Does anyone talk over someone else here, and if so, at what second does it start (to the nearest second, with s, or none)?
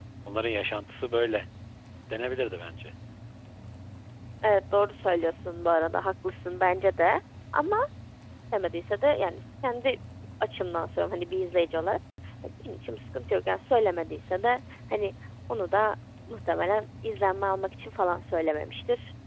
none